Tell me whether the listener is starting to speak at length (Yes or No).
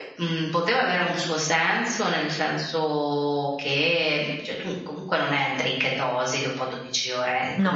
No